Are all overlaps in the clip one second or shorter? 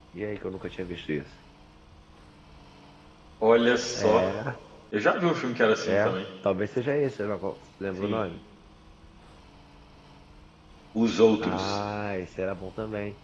Yes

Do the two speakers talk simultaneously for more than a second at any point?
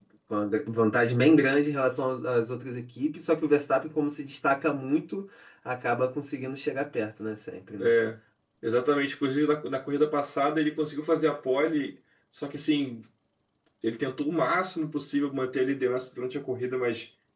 No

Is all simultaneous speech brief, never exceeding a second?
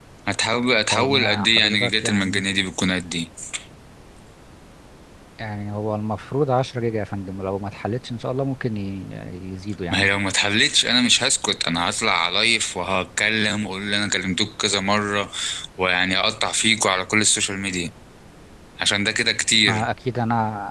No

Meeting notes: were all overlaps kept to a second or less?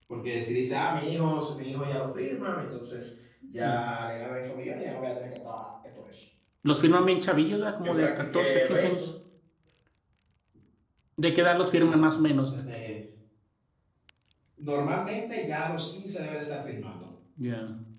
No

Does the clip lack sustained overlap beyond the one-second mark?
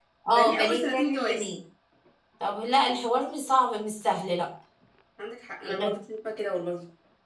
No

